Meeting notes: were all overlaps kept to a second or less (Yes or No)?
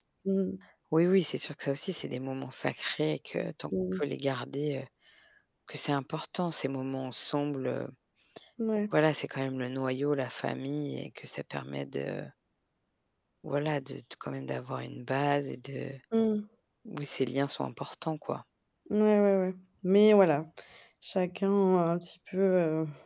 Yes